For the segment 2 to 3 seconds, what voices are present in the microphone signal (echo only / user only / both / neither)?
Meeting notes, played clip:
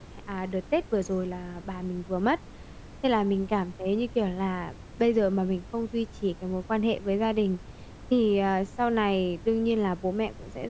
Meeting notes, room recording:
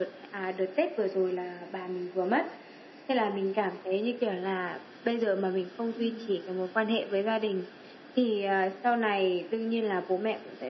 echo only